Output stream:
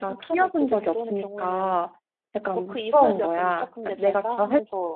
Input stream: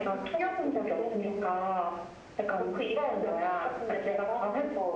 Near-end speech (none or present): none